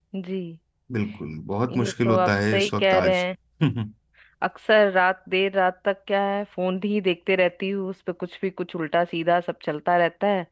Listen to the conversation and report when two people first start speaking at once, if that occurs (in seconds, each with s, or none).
1.8 s